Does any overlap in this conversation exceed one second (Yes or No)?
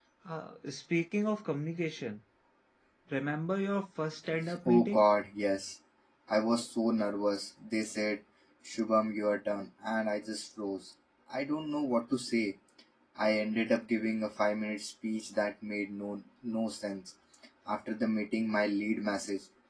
No